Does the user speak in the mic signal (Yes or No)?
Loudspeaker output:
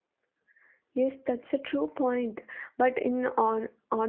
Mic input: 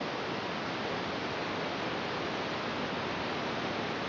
No